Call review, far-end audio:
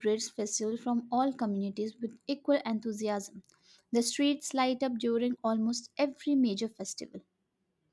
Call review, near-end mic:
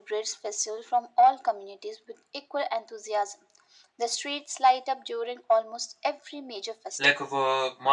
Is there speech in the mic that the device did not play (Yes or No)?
Yes